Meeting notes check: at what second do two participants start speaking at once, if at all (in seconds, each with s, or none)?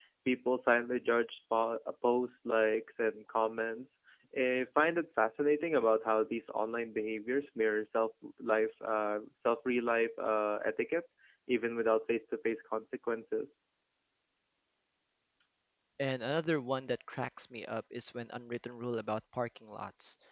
none